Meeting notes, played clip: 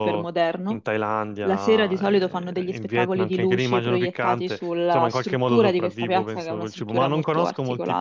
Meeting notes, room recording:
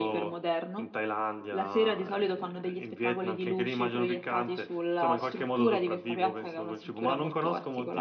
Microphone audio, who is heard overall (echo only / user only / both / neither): echo only